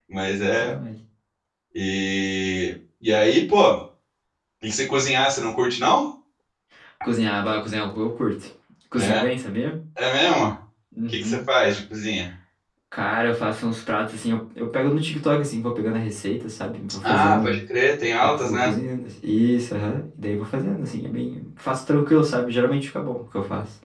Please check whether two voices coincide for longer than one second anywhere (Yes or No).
No